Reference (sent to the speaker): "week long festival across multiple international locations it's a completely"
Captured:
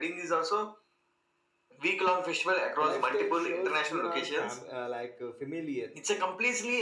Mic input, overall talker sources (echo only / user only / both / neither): both